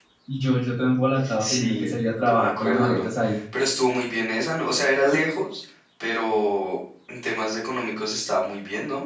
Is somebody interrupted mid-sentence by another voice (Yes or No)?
Yes